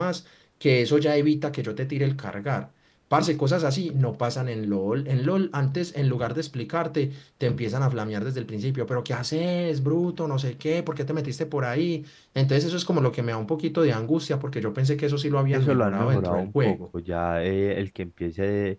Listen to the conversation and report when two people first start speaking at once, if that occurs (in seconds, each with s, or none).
15.5 s